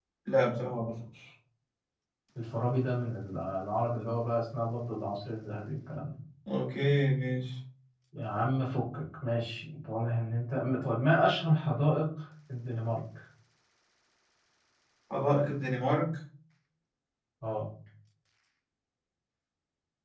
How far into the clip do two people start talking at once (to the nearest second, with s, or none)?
none